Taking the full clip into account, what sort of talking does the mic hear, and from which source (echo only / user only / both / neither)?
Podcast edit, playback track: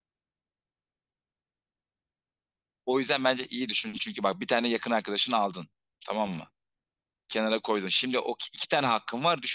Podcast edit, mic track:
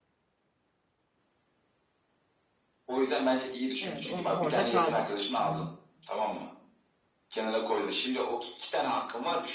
both